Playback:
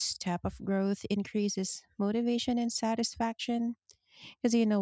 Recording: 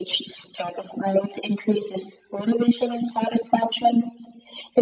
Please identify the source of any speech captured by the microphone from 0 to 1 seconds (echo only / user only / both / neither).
echo only